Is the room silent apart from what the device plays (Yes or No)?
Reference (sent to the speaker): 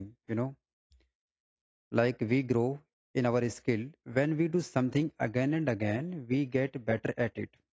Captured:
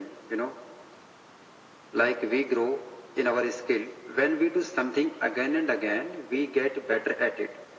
Yes